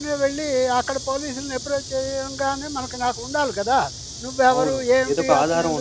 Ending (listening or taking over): taking over